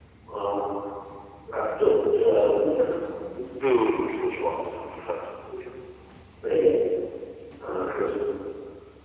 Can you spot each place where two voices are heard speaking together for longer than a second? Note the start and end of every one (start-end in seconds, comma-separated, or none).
none